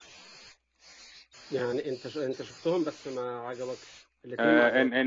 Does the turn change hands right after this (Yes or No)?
Yes